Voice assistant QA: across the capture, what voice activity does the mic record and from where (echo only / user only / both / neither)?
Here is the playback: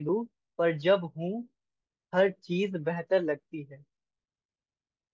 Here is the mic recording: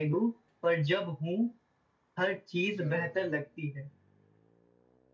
both